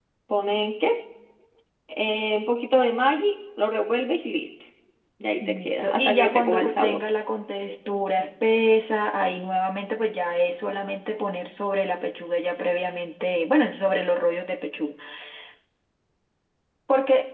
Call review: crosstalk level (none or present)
present